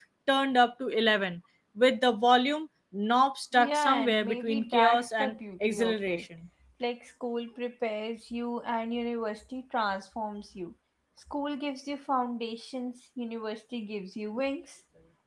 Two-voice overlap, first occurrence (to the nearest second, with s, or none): 4 s